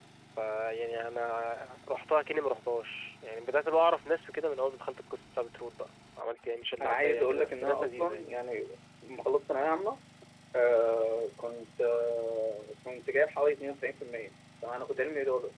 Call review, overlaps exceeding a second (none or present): present